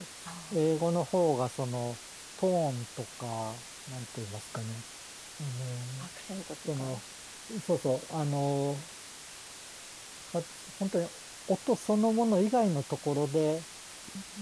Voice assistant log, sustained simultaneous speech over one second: none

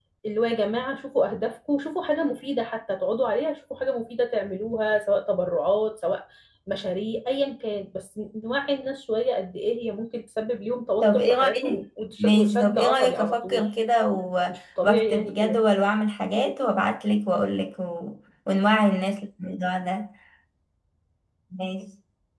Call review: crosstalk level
present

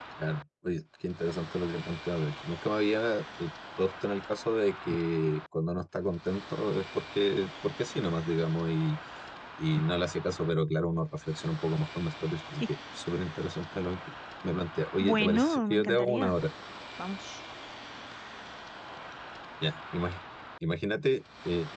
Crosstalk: present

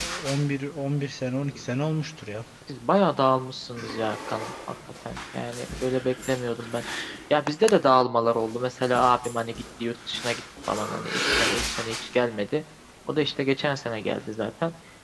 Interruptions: none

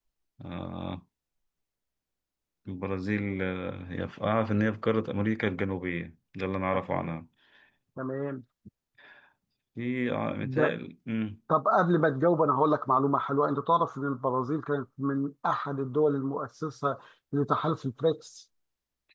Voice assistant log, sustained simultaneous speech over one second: none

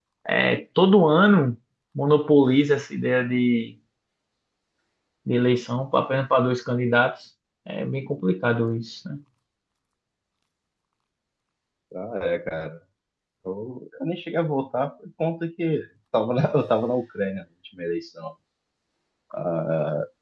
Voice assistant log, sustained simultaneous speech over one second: none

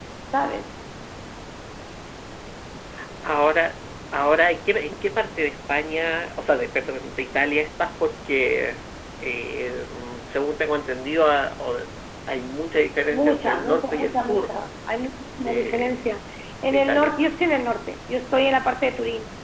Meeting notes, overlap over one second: present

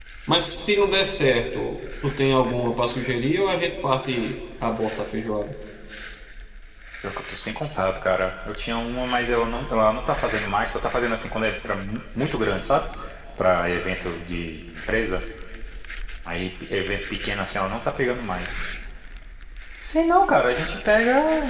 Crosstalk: none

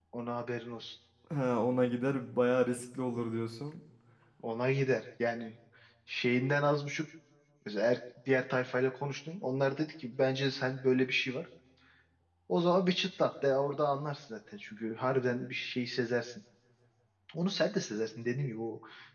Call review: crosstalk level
none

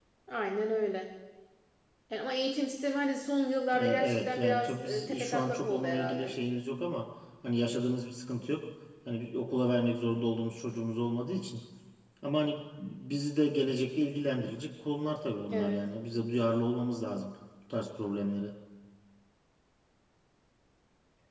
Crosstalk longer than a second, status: present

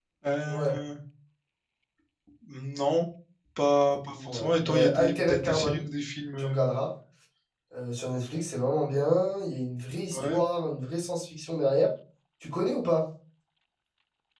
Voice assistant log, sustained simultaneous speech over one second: present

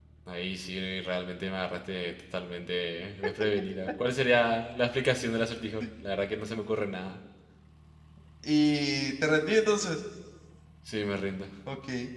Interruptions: none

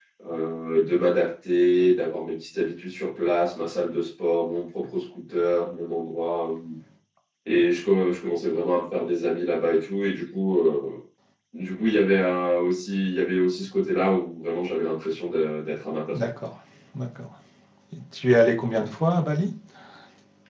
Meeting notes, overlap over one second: none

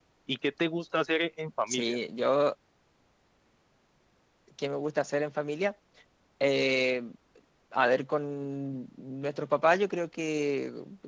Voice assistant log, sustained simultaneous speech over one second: none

